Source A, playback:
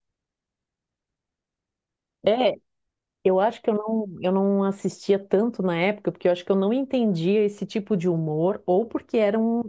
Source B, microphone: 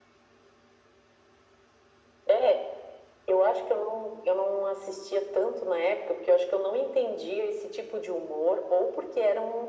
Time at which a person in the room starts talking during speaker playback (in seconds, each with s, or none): none